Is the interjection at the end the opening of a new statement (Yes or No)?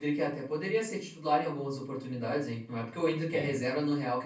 No